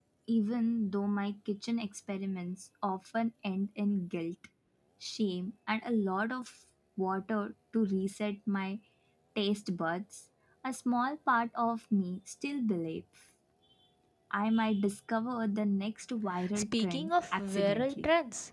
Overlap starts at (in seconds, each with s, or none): 16.3 s